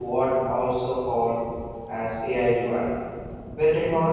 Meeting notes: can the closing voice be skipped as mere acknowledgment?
Yes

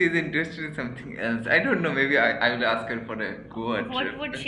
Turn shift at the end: Yes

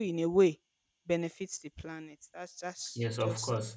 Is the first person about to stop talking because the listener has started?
Yes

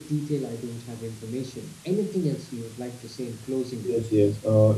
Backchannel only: No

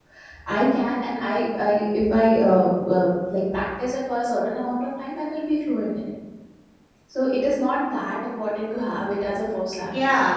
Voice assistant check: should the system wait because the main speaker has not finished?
No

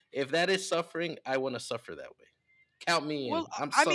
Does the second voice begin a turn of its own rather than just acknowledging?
Yes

